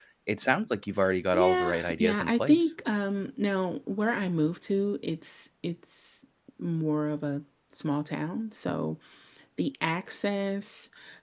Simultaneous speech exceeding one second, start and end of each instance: 1.3-2.7

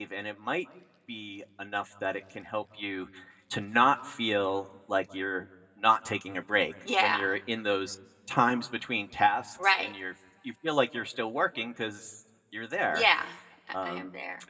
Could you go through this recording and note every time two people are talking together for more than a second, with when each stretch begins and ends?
none

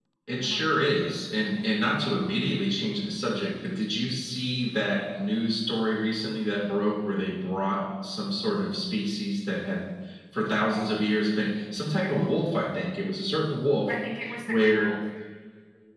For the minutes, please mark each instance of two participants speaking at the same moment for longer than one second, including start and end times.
none

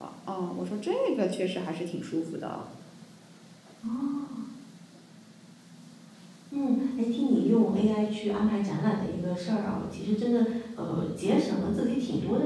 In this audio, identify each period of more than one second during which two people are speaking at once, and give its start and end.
none

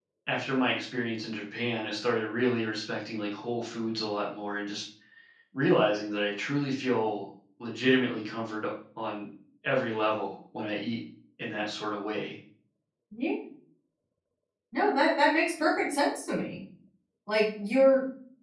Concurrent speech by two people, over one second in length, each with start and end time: none

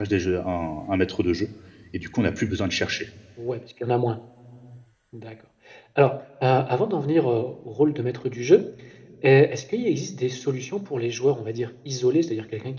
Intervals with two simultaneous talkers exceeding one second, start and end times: none

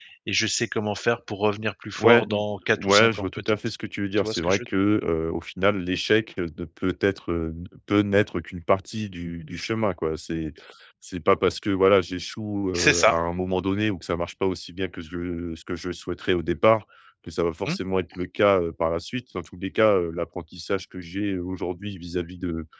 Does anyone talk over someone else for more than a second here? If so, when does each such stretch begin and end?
2.0-3.6

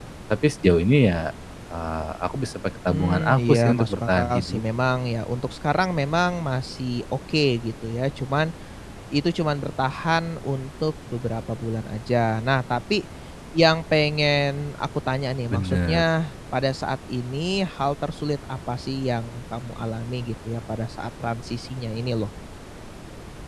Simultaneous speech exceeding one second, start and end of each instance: 2.9-4.6

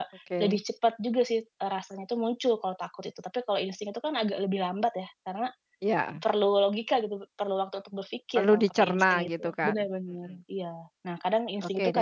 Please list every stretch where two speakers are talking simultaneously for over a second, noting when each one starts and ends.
8.4-9.8

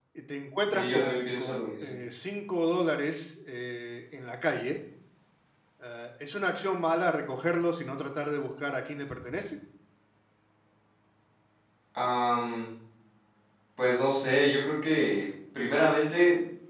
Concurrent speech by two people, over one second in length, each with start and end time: 0.7-1.9

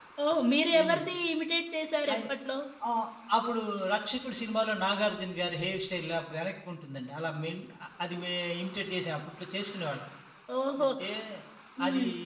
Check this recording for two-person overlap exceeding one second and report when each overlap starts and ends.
none

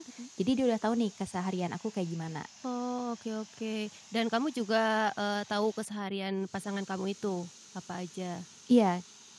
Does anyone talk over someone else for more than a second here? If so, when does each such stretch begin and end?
none

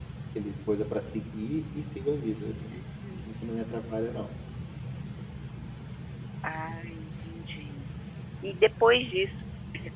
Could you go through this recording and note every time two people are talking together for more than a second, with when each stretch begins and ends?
none

